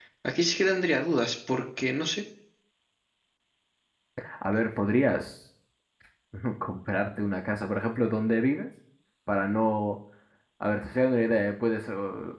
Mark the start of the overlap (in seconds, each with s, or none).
none